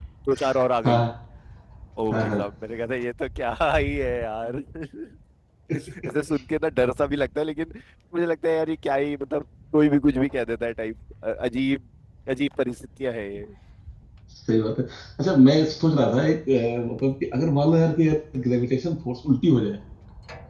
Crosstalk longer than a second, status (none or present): none